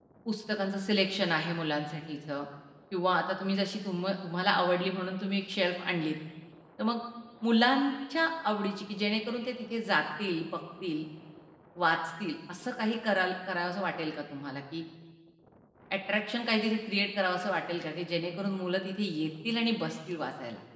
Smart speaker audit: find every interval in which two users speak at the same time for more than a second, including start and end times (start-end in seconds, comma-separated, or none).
none